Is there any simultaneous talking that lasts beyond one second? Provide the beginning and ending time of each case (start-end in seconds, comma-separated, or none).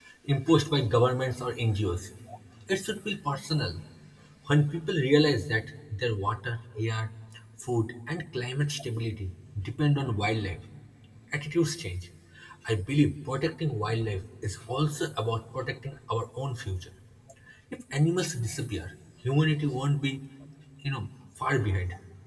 none